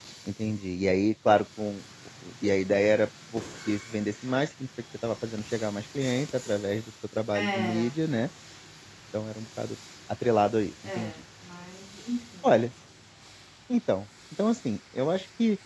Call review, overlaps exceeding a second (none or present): none